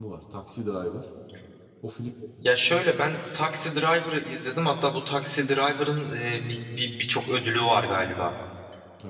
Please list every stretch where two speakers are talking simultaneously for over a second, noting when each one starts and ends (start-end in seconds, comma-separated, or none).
none